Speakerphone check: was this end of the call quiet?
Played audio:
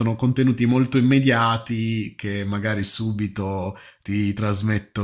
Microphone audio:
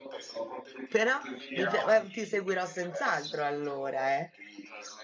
No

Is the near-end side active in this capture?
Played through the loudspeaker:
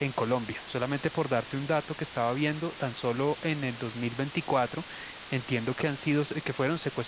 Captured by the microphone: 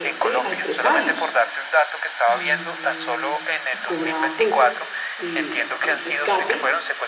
Yes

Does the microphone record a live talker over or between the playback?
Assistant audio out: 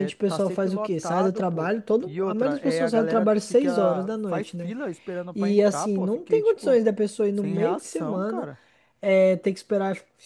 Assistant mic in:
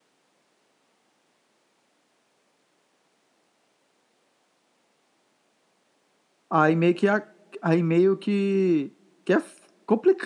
Yes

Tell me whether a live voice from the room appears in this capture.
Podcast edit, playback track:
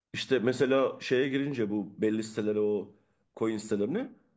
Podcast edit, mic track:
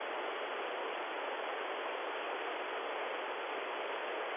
No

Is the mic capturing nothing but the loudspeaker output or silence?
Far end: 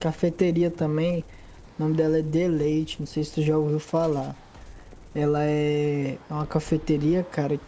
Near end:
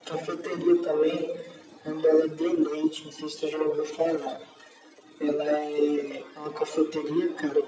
Yes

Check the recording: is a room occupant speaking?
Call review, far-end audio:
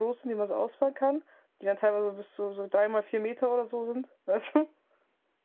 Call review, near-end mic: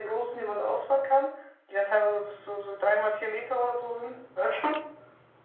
No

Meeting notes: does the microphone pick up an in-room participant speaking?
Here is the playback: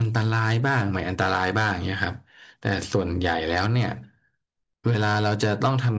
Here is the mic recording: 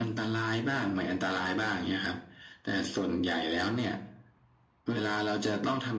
No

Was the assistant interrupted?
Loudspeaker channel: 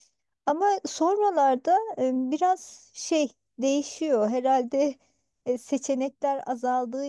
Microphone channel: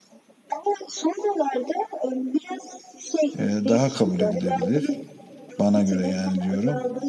Yes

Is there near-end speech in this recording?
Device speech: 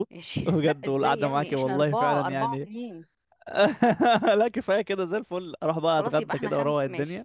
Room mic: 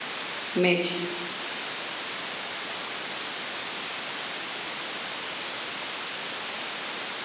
Yes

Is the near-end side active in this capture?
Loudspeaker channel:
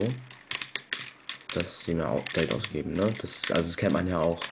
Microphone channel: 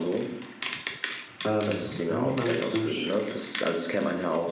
Yes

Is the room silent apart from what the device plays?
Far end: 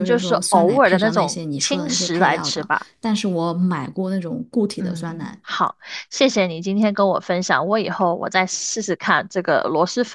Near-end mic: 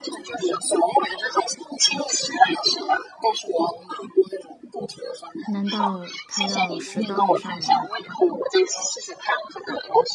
No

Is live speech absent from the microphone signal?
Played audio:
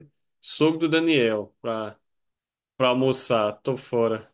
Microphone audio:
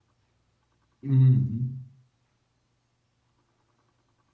No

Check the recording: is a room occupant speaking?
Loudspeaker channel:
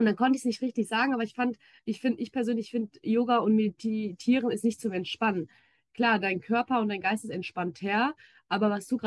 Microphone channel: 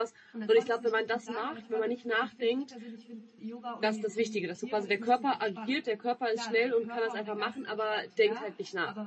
Yes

